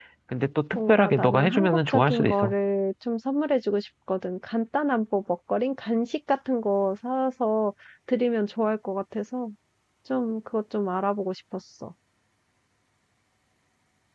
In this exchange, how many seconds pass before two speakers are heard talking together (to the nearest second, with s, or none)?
1 s